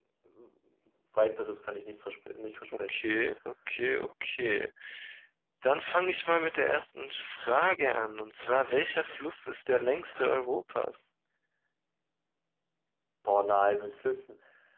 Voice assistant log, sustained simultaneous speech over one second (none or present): none